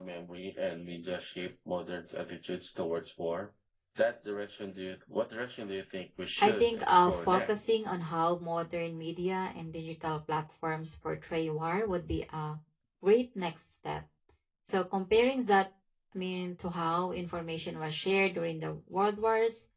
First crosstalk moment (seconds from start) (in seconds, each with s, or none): 6.4 s